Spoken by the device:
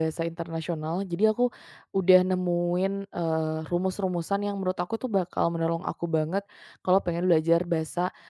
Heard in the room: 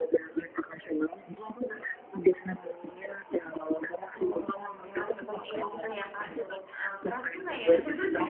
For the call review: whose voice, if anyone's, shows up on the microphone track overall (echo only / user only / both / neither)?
both